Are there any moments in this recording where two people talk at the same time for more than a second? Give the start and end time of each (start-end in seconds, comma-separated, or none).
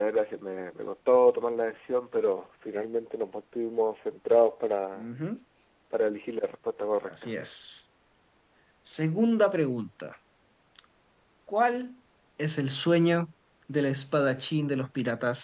none